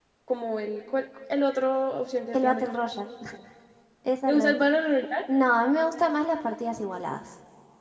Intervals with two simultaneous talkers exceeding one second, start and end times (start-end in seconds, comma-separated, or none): none